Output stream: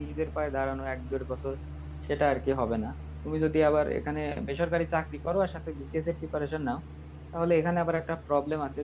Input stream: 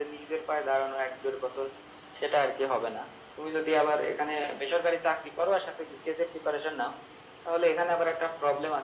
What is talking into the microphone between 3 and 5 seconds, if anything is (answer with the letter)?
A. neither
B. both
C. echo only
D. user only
C